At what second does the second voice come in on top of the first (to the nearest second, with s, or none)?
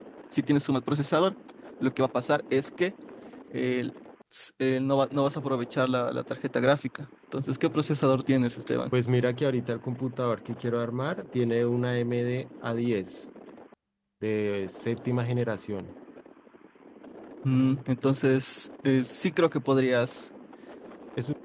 none